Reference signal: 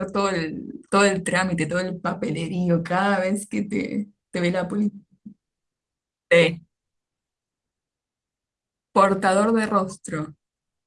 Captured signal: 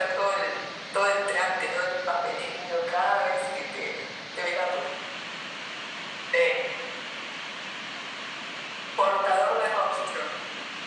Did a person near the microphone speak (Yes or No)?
No